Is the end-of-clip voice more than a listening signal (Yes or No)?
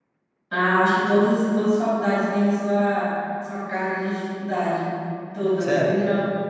Yes